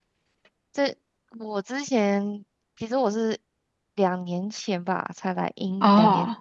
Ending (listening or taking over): listening